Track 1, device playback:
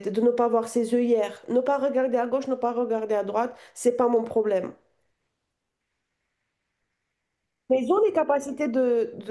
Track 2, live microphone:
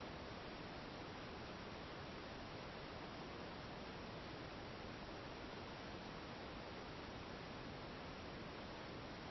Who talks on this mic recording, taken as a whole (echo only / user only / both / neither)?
neither